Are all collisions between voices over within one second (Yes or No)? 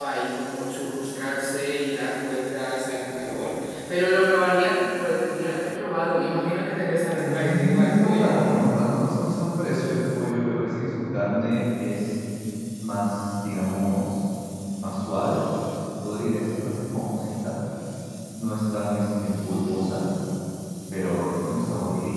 No